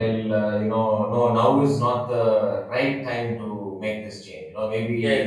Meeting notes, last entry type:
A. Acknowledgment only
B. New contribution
A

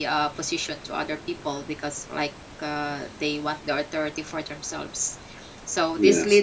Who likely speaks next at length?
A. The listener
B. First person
B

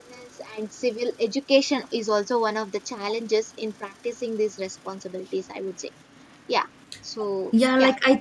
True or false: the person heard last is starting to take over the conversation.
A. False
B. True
B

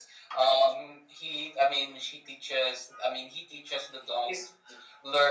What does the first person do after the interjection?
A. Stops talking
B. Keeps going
B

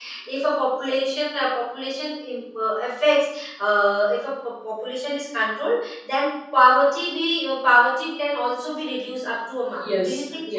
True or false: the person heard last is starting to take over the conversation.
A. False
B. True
B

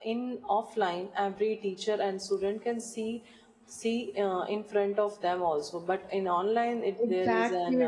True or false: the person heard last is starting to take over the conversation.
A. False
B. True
B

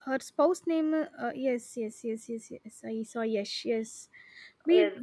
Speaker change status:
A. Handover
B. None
B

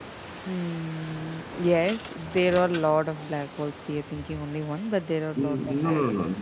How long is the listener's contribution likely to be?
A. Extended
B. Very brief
A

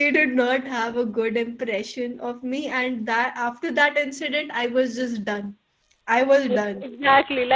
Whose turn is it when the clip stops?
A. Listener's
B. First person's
A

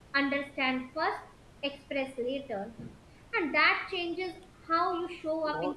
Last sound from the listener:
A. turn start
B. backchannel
B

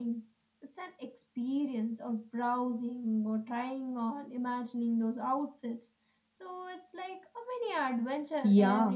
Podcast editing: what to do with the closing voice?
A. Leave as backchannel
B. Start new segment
B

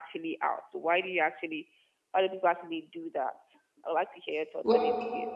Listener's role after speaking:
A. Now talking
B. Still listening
A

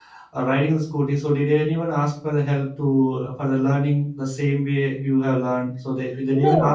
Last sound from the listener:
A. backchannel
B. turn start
B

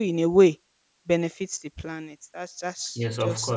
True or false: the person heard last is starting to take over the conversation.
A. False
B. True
B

